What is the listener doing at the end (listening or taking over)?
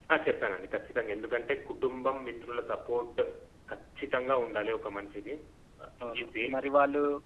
taking over